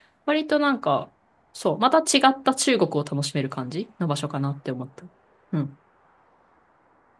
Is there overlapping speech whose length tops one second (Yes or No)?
No